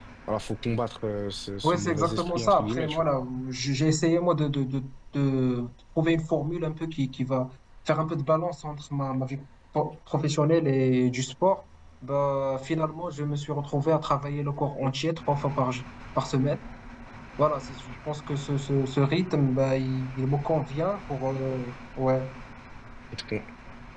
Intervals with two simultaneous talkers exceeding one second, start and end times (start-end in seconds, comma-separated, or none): 1.6-3.1